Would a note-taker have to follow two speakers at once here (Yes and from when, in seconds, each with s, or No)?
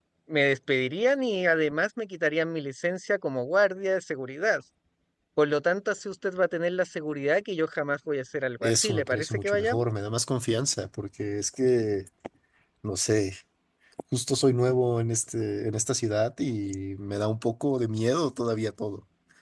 Yes, from 8.6 s